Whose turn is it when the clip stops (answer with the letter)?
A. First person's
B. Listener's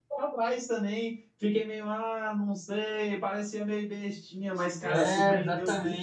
B